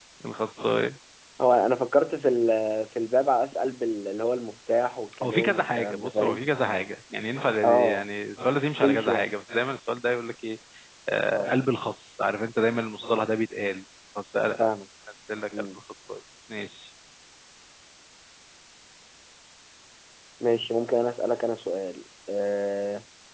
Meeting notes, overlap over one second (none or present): present